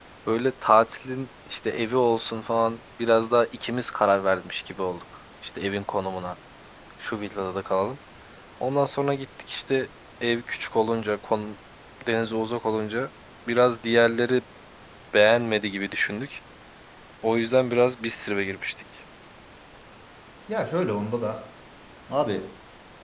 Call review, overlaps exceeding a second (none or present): none